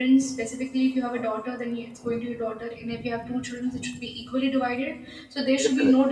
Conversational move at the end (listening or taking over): listening